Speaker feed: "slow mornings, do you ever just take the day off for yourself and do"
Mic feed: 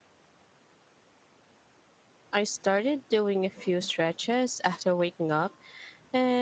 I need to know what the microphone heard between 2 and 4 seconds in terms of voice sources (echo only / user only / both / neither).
user only